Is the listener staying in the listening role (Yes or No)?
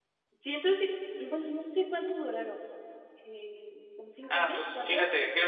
No